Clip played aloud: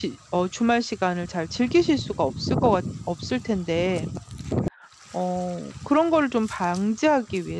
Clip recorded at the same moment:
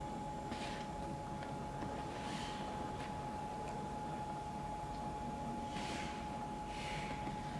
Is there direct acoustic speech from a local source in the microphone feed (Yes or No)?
No